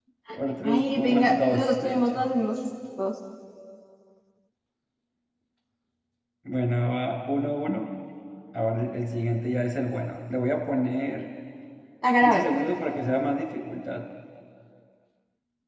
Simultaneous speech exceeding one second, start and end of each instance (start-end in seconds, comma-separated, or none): 0.6-2.2